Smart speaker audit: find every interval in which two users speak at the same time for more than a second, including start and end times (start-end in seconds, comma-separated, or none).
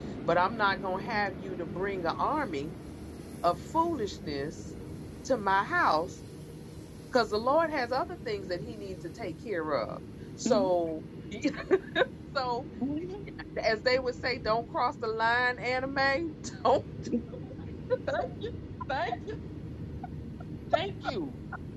none